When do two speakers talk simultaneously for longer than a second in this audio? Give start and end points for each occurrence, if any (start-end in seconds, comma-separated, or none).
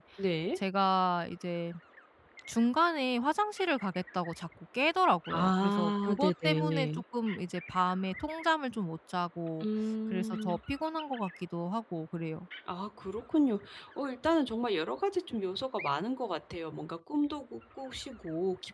5.3-7.0